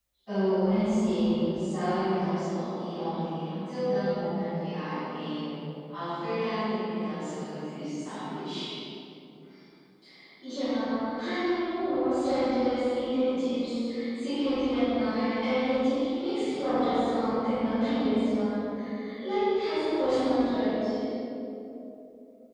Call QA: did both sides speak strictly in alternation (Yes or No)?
Yes